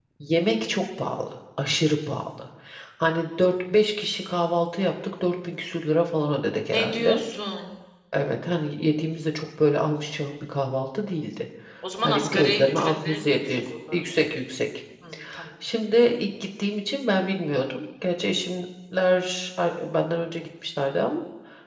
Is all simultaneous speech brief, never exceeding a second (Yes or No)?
No